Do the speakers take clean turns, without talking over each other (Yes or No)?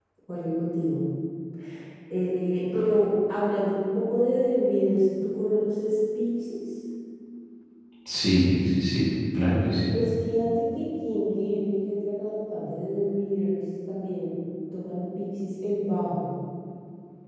Yes